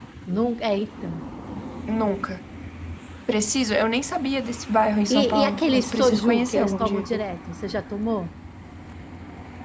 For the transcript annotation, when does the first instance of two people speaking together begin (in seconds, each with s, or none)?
5.1 s